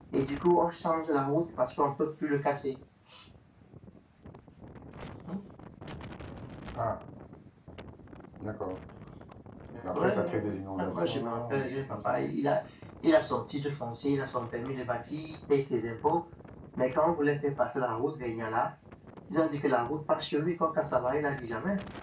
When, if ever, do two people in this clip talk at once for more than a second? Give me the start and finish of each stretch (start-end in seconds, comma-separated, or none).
9.9-12.1